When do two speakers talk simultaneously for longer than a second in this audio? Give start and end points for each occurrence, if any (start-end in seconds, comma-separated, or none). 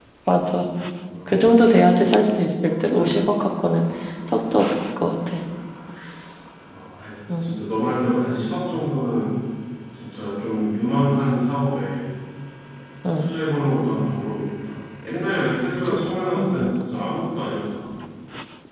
none